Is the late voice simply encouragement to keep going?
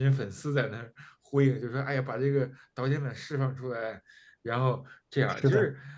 Yes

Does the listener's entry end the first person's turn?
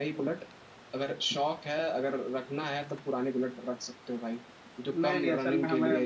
Yes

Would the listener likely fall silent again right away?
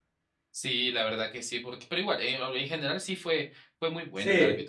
No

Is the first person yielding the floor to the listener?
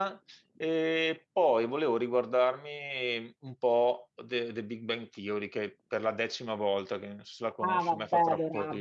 Yes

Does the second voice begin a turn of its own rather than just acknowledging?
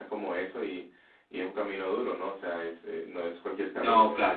No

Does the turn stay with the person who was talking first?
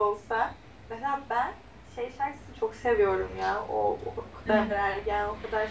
Yes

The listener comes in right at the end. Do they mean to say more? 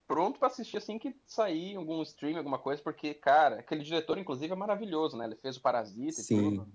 Yes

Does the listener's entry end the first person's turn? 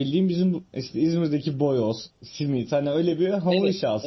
Yes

